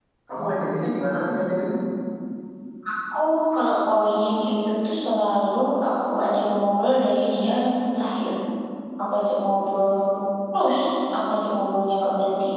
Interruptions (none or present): none